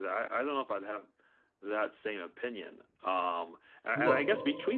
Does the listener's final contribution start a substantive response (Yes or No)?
No